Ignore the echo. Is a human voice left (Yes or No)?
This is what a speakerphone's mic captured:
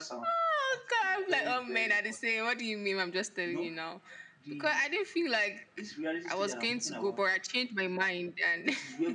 No